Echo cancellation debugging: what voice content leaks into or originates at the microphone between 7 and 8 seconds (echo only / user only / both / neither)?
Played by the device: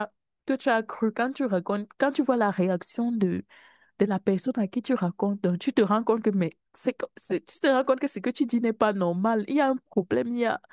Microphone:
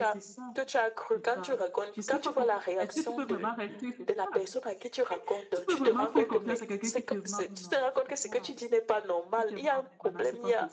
both